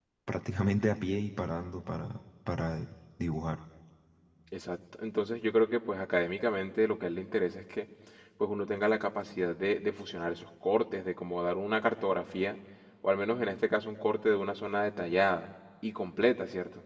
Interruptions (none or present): none